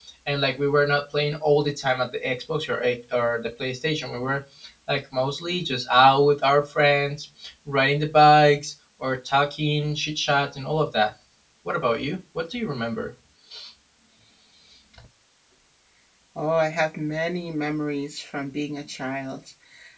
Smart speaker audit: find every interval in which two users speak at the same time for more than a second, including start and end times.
none

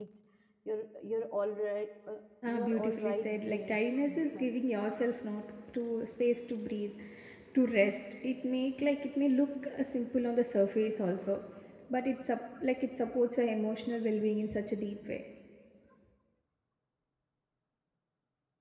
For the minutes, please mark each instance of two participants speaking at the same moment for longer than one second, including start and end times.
2.5-3.8

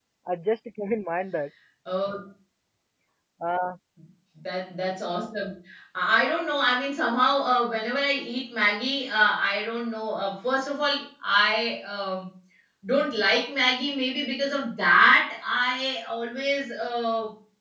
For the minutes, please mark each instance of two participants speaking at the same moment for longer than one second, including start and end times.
none

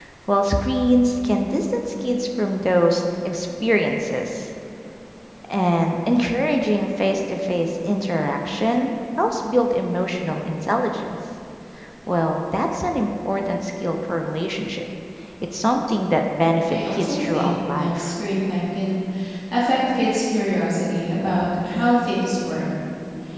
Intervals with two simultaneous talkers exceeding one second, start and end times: 16.7-18.1

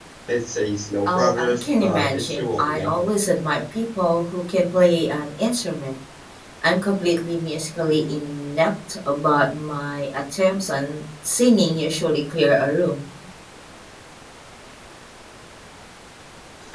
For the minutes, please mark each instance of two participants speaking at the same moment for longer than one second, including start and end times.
1.1-2.9

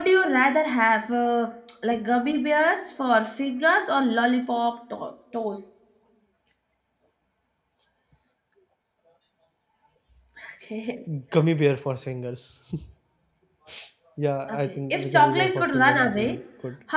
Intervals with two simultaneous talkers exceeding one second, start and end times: 14.5-16.4

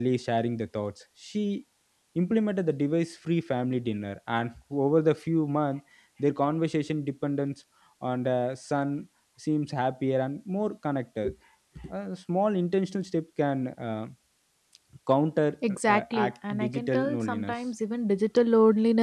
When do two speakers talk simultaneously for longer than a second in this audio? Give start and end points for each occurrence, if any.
15.7-17.5

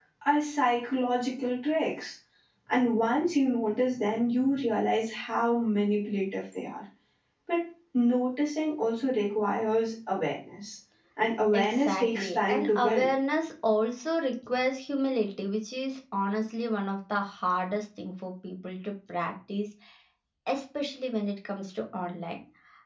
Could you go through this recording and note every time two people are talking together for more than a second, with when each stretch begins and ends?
11.5-13.1

